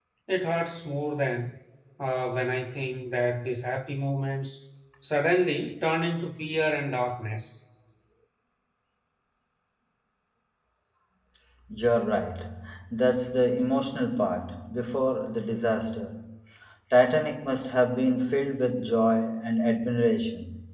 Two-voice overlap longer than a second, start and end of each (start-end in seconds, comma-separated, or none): none